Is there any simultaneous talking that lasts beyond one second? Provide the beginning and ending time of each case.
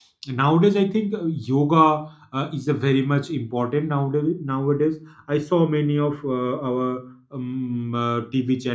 none

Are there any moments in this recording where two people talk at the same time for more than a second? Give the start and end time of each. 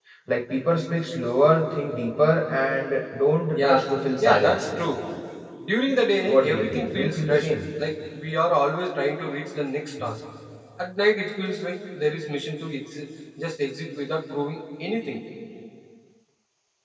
6.3-7.5

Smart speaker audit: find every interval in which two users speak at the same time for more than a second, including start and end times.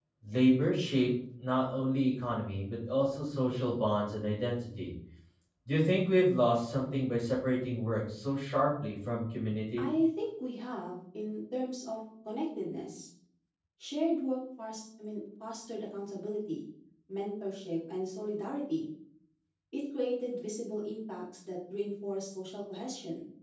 none

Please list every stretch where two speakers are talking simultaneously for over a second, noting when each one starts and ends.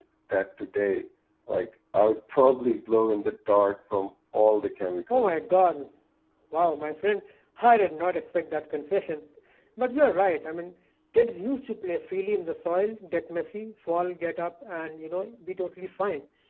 none

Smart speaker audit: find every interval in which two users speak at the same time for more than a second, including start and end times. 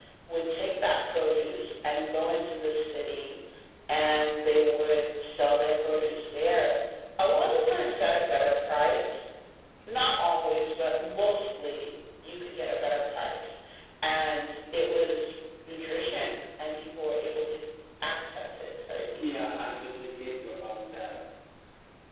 none

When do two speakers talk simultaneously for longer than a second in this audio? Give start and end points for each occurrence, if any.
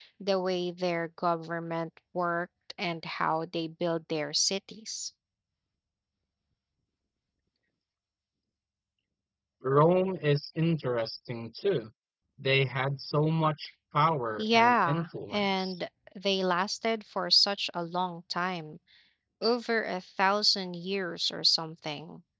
14.4-15.8

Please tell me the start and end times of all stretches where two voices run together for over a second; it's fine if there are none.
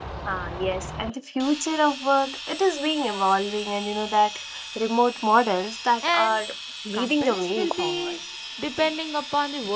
6.9-8.1

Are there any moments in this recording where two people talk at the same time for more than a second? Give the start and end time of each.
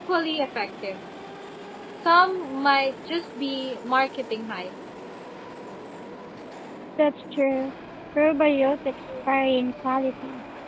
none

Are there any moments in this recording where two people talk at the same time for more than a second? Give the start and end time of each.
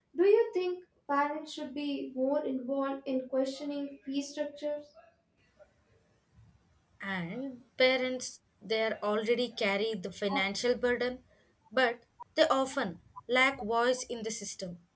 none

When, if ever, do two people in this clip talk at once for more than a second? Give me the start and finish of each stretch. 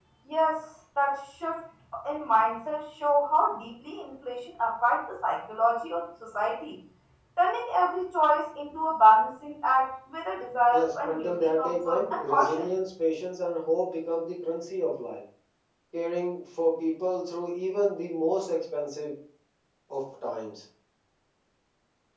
10.7-12.7

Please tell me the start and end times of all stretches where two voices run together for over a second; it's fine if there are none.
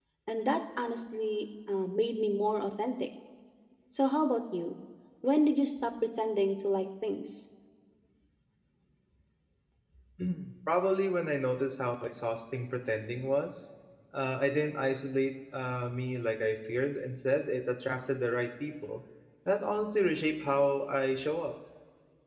none

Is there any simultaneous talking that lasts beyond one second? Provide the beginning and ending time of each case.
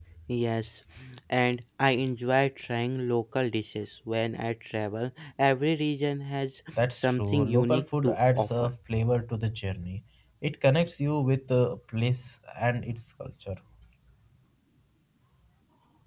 6.9-8.7

